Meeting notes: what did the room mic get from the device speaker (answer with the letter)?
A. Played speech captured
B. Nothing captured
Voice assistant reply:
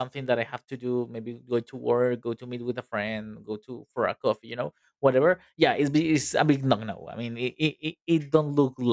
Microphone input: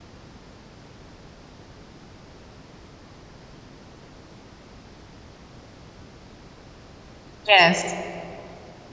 B